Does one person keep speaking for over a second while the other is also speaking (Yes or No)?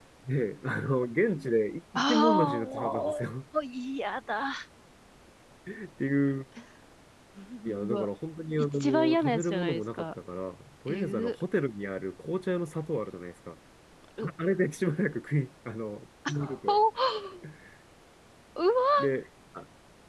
Yes